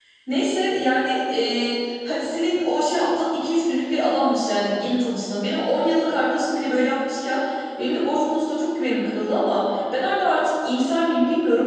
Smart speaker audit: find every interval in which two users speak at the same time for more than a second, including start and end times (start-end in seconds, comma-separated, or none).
none